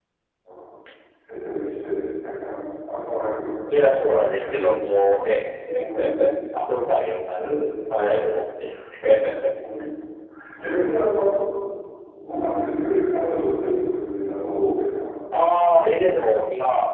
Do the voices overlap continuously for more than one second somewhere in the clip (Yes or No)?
No